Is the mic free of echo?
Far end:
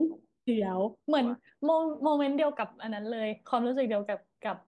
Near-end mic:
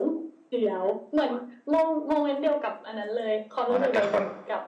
No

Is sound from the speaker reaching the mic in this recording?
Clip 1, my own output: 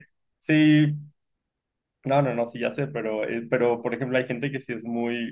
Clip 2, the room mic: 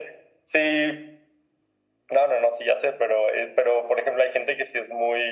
Yes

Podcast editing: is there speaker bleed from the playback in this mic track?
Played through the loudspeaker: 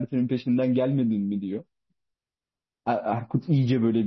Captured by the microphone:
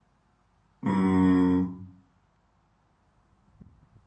No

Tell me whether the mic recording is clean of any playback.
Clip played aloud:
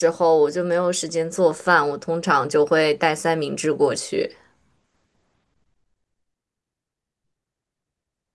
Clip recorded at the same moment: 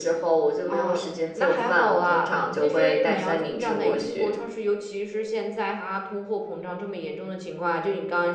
No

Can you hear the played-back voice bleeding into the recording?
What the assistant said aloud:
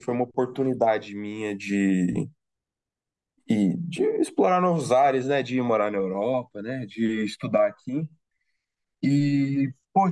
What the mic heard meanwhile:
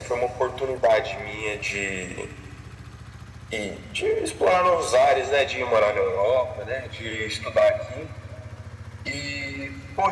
Yes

